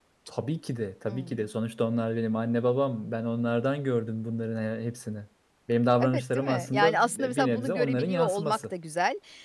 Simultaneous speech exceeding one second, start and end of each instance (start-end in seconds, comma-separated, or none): 6.0-8.7